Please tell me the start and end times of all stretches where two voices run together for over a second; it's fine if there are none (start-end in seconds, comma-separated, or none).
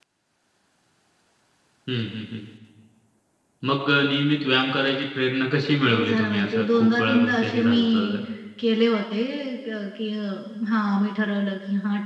5.8-8.2